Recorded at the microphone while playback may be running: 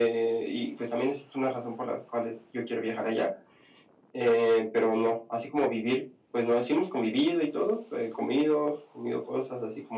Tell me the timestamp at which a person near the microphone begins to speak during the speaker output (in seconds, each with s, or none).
none